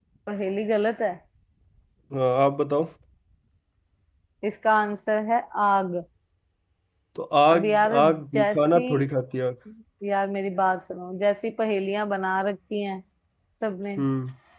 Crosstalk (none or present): present